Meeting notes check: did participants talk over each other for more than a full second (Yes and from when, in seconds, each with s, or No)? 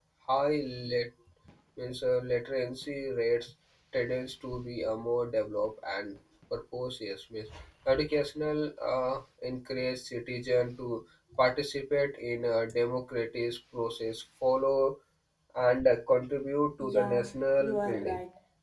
Yes, from 16.8 s